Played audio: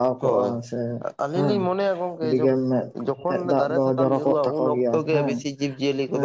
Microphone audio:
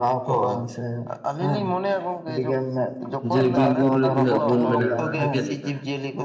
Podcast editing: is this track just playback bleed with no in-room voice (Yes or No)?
No